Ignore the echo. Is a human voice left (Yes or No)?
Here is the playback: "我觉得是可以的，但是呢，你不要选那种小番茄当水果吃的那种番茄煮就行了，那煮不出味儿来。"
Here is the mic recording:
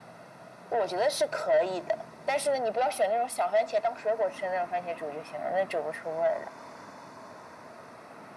No